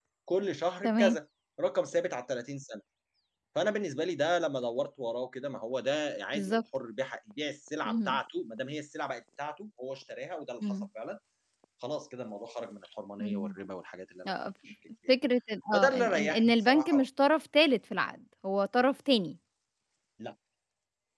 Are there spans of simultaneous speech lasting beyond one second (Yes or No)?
Yes